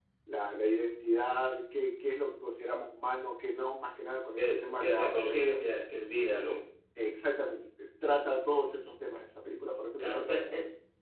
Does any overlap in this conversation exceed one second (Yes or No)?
Yes